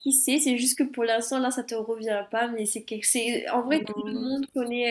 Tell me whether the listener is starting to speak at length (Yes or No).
No